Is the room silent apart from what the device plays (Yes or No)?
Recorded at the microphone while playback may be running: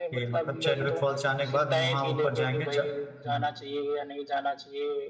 No